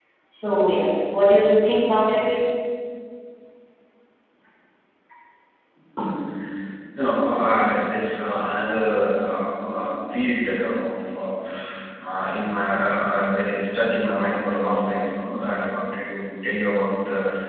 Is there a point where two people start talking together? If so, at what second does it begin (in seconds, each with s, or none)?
none